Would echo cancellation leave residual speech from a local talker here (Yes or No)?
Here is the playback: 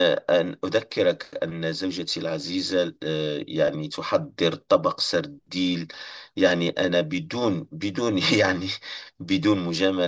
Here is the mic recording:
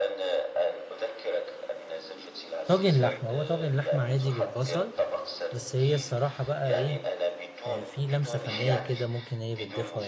Yes